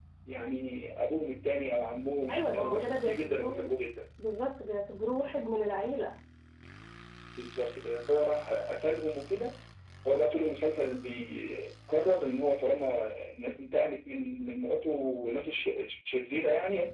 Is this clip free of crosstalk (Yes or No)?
No